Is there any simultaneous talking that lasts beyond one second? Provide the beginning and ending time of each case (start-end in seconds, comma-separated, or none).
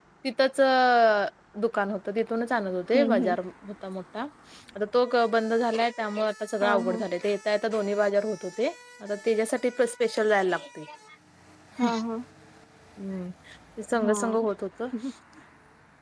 none